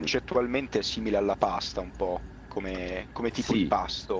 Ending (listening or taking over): taking over